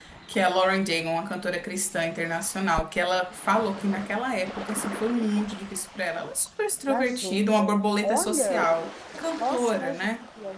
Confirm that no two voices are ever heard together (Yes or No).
No